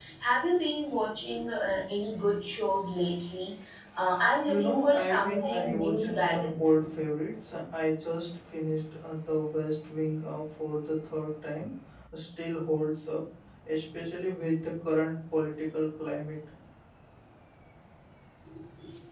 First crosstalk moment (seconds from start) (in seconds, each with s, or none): 4.5 s